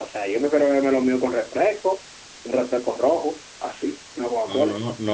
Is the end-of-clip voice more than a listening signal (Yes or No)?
Yes